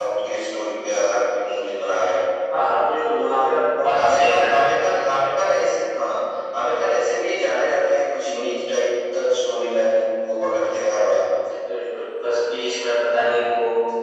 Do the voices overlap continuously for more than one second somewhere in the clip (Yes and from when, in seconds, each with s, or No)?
Yes, from 3.2 s